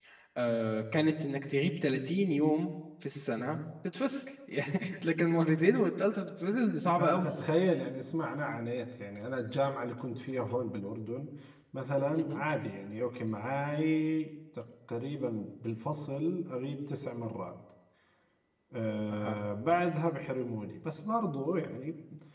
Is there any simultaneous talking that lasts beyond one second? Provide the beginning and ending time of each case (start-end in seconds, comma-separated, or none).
none